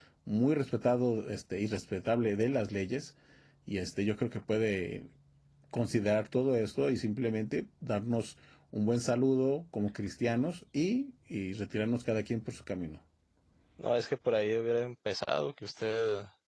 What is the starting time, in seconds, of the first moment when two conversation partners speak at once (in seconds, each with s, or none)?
none